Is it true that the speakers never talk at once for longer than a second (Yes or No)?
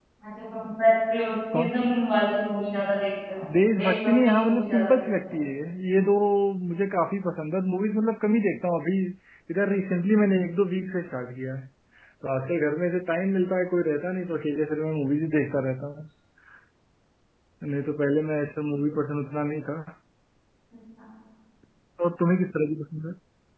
No